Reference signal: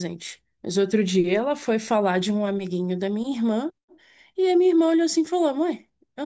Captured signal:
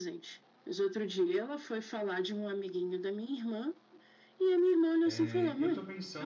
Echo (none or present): present